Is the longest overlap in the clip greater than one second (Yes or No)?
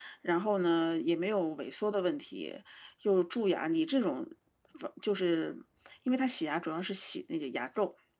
No